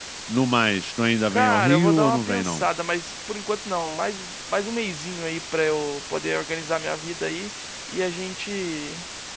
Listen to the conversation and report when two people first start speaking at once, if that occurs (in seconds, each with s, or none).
1.3 s